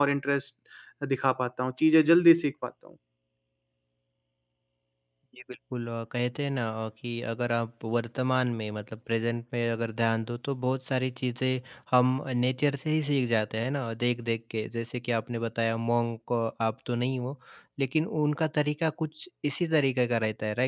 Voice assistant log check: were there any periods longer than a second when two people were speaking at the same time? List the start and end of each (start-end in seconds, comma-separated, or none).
none